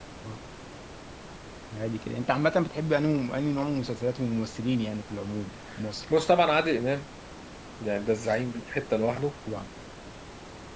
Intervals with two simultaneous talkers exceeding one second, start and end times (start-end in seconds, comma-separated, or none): none